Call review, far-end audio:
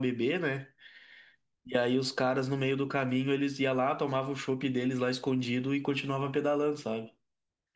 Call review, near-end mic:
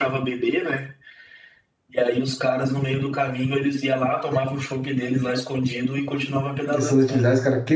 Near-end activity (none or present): present